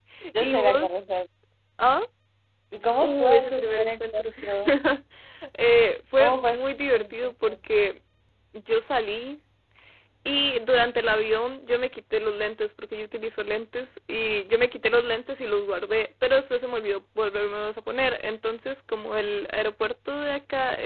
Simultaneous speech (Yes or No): Yes